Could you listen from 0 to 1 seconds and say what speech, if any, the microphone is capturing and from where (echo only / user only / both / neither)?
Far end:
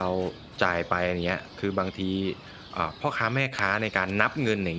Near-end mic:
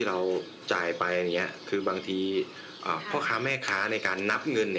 echo only